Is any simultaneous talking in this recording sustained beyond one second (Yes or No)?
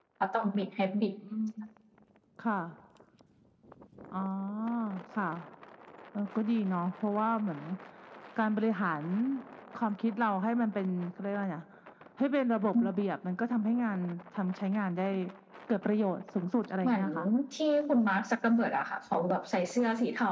No